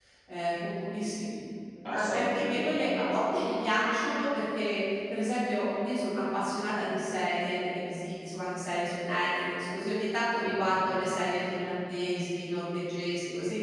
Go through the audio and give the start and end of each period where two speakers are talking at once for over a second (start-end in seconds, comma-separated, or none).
1.9-3.1